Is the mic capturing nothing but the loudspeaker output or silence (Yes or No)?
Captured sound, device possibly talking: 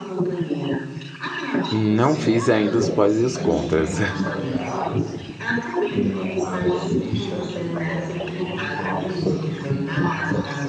No